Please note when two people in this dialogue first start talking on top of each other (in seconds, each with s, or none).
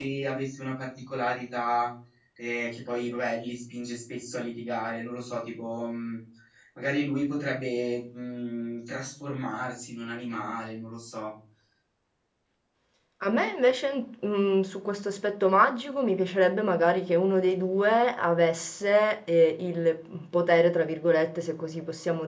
none